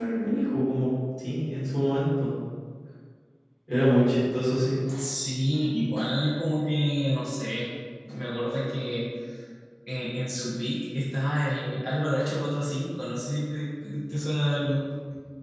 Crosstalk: none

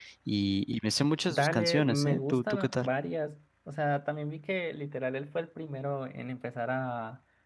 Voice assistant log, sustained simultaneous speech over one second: present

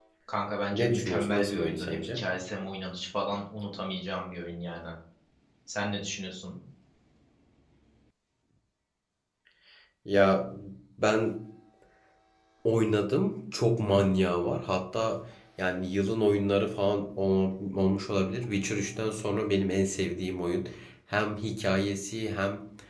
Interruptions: present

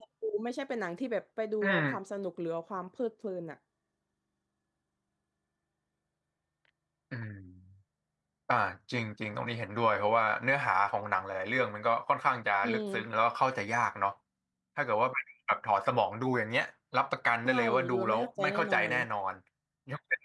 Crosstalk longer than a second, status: present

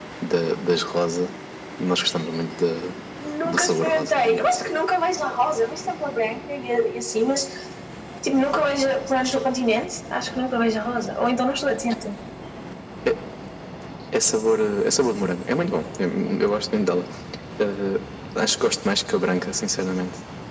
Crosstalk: present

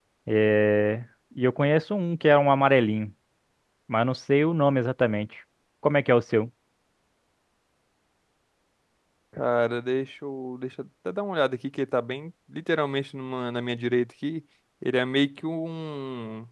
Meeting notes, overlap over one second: none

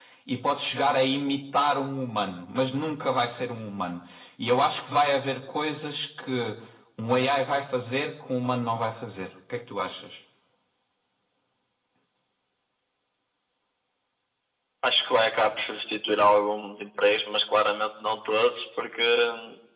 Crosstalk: none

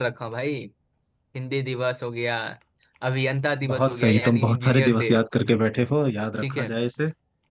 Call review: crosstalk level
present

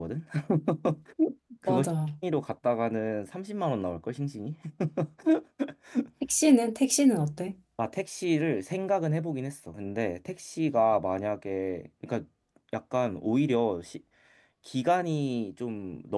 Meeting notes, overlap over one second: none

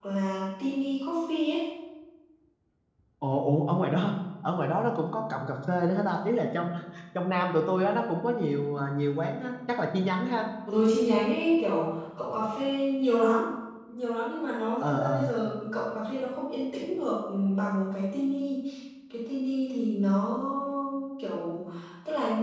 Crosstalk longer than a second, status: none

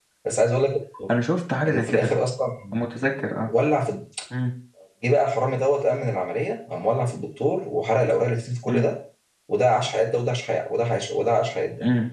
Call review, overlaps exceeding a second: none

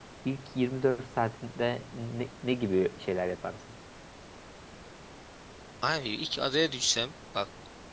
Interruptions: none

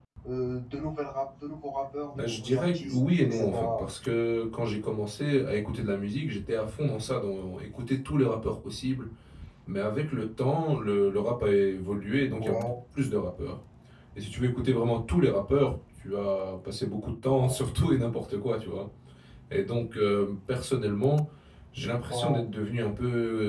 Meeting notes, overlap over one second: present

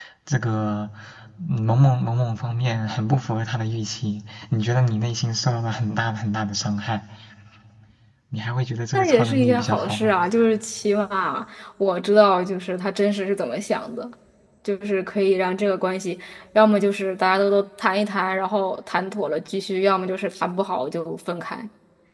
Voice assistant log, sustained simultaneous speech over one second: present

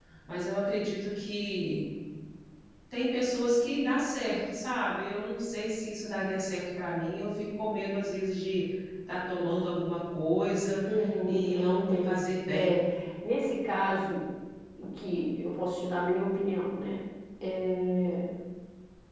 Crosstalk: present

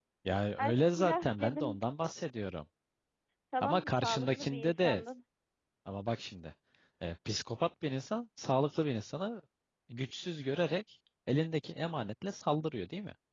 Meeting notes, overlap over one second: present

